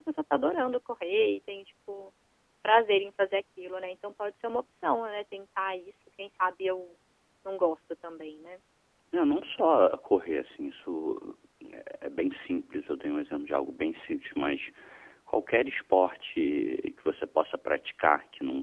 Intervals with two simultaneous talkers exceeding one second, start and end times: none

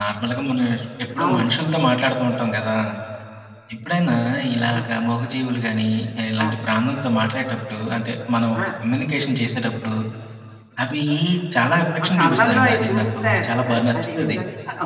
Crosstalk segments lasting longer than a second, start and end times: 12.2-14.4

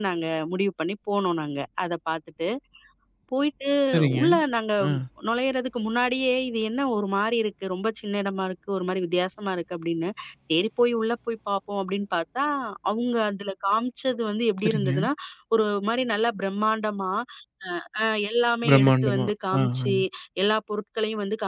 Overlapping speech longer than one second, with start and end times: 18.7-19.9

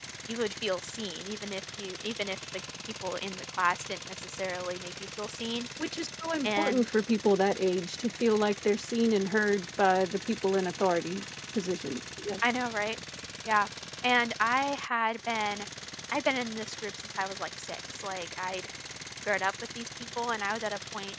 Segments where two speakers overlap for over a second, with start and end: none

